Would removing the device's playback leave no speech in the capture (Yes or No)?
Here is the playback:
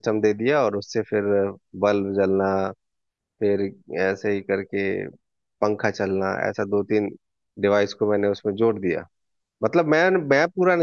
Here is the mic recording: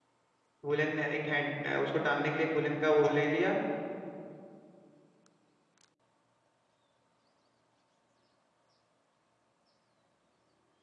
No